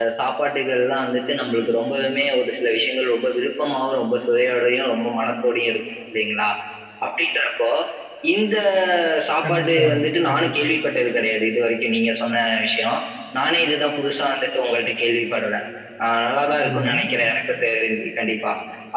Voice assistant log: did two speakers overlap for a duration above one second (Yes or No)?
Yes